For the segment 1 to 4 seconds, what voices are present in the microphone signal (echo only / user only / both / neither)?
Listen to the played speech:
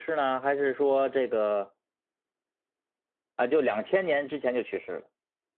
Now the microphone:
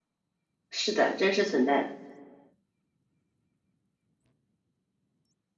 user only